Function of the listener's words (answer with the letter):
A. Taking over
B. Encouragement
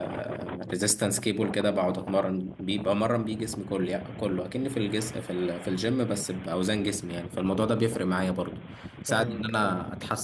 B